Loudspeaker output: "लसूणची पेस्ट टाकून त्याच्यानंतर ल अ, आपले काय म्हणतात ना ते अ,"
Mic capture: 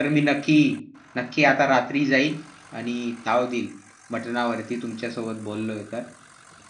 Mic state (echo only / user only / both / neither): user only